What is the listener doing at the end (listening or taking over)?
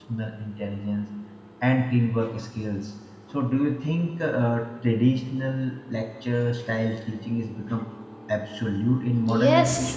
taking over